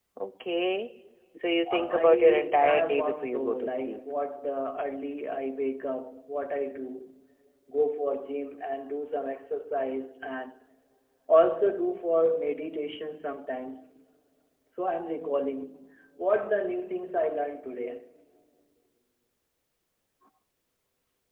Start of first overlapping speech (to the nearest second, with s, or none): 2 s